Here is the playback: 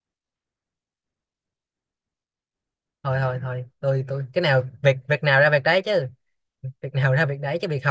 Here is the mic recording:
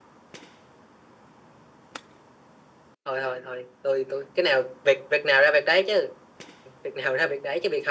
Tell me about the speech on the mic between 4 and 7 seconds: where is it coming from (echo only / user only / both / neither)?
echo only